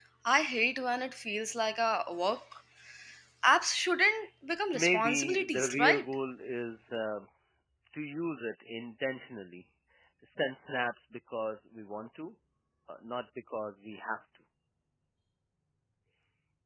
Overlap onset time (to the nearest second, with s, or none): 5 s